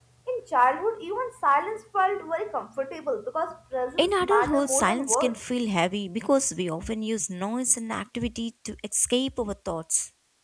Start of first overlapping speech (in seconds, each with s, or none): 4.0 s